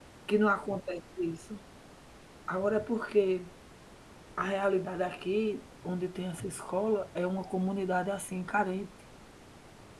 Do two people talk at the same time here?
No

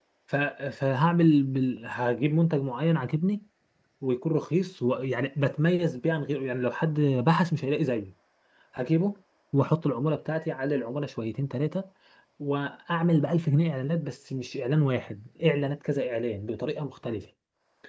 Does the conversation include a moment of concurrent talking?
No

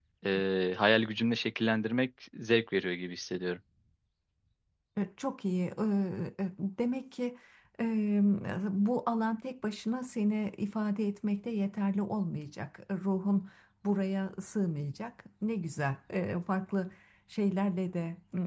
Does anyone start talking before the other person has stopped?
No

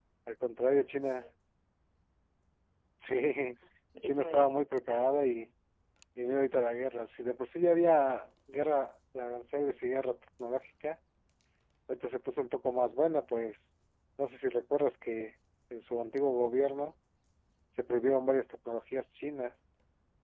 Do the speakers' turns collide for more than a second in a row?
Yes, from 4.0 s

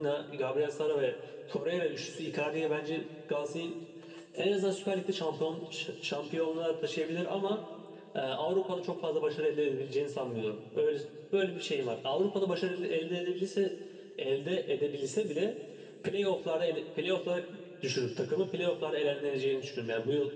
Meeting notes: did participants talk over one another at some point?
No

